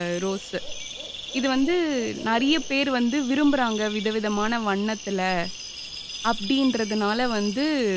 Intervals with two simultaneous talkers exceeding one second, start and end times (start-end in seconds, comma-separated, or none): none